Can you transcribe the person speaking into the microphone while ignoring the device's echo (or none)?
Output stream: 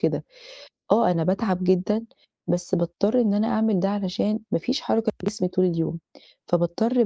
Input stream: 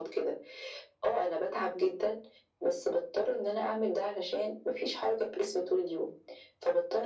none